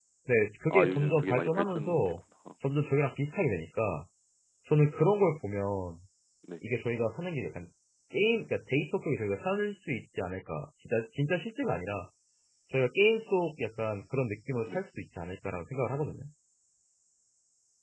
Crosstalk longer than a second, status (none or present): present